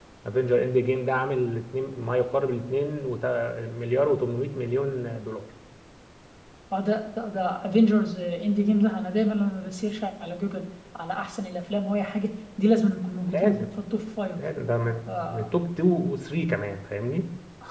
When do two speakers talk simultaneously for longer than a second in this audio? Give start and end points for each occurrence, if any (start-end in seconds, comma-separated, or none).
none